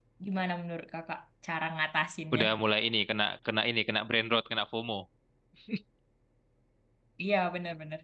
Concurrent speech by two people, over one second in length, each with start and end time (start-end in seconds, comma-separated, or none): none